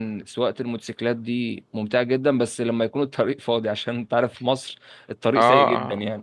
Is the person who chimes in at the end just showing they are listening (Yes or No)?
No